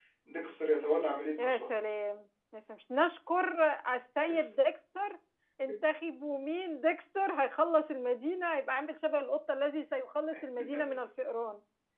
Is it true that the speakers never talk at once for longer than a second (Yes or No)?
Yes